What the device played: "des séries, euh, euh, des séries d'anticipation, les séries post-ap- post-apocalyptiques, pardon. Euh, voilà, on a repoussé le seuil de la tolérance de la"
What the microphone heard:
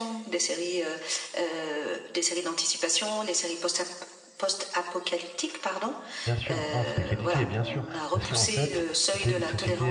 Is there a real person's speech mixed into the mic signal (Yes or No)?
Yes